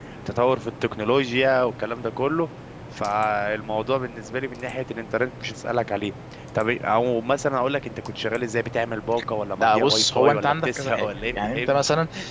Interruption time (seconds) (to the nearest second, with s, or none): 10 s